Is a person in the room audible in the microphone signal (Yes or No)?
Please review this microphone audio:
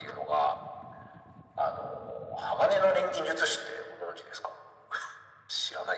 No